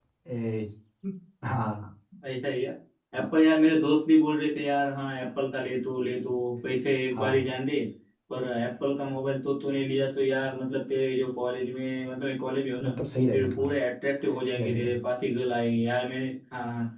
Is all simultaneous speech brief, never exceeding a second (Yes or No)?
Yes